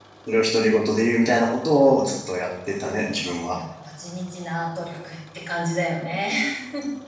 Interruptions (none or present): none